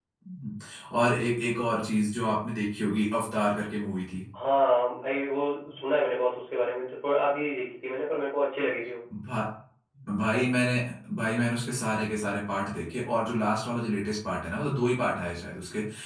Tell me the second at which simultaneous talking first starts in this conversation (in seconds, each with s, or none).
none